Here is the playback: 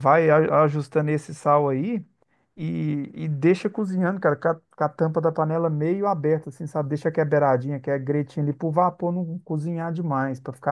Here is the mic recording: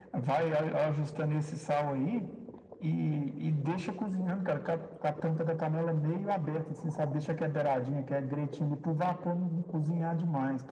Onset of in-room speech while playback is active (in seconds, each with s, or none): none